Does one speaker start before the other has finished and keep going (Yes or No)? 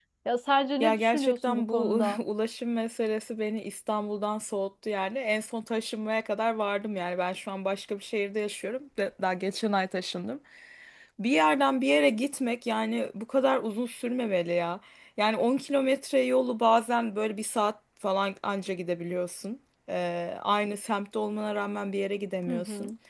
Yes